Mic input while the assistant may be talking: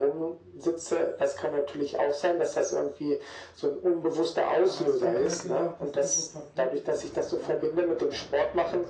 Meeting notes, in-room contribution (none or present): present